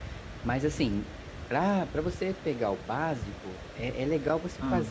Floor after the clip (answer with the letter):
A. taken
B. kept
B